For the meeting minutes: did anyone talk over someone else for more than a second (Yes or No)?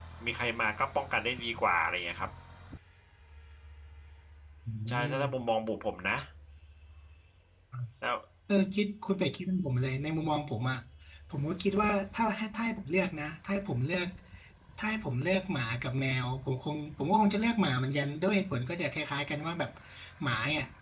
No